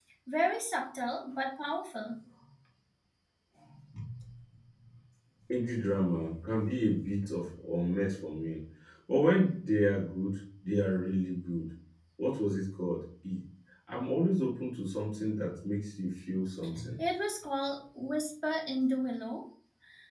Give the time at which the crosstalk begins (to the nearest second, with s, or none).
none